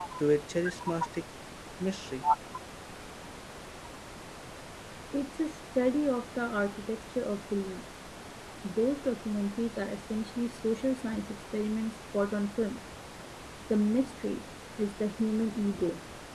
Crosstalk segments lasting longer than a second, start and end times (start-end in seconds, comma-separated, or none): none